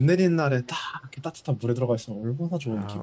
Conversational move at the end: taking over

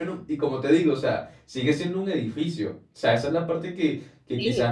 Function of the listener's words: listening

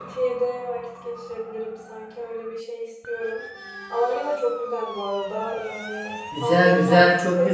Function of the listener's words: taking over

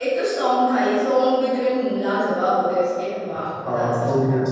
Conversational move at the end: taking over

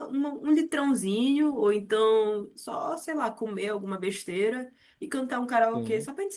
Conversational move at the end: listening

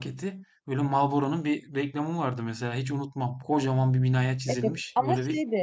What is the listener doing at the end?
taking over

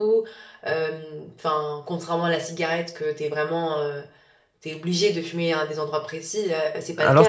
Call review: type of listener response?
taking over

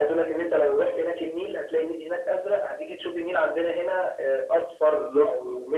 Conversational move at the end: listening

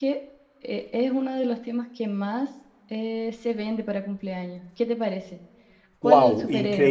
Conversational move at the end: taking over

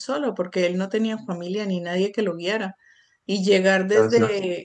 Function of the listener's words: listening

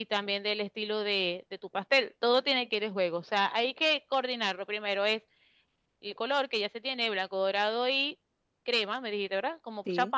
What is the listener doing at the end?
listening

